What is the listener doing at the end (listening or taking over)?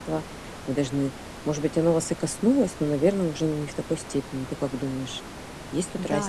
taking over